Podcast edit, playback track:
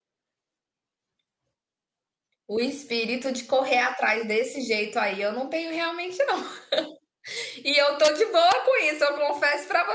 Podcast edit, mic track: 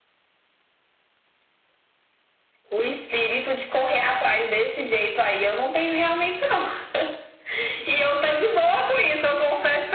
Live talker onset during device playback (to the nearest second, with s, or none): none